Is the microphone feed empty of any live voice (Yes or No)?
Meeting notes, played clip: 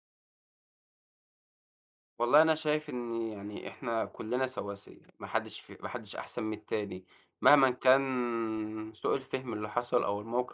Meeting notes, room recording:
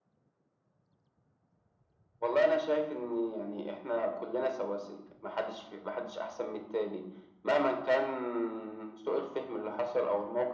Yes